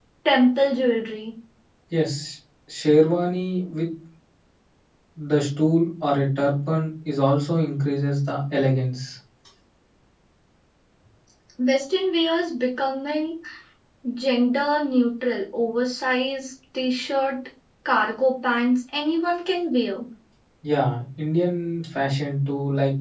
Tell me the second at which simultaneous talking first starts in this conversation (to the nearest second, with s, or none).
none